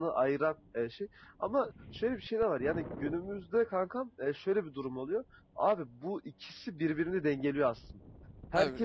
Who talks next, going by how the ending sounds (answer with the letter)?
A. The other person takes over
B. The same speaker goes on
B